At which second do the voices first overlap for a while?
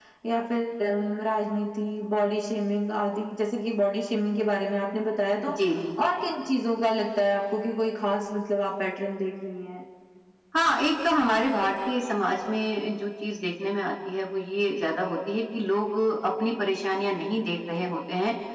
none

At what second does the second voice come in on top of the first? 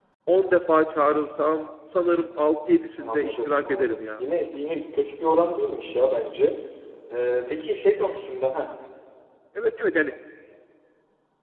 2.9 s

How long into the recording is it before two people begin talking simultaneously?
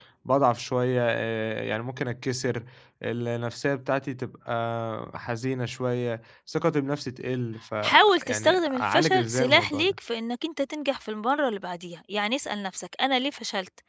7.8 s

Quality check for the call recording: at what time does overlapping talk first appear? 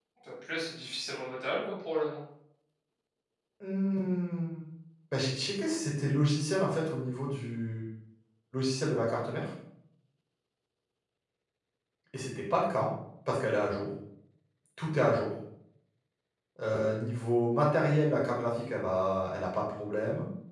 none

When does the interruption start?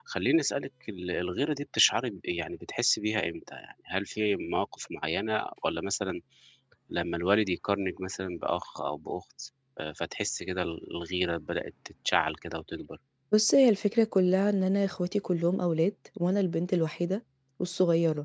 none

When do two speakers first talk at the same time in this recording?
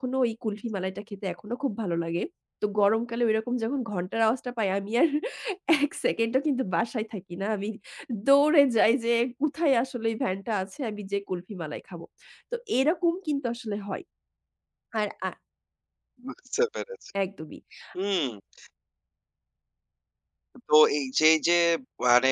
none

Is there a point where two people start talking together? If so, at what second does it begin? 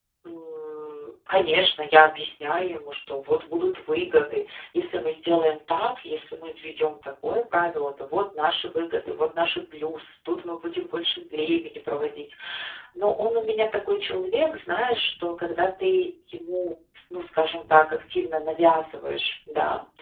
none

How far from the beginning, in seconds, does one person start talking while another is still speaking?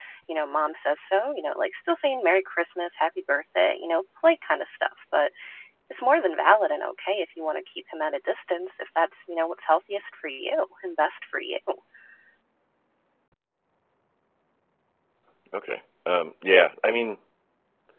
none

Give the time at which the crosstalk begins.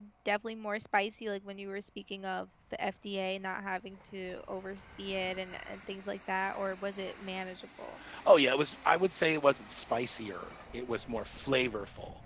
none

